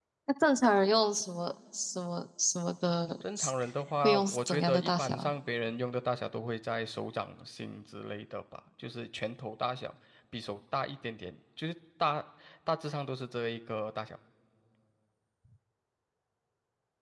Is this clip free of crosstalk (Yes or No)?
No